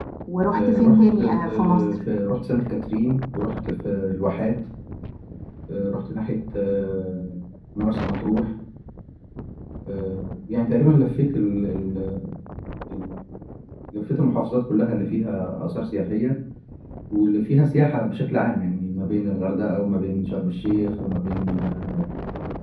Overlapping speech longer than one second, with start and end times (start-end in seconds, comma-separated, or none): 0.6-2.0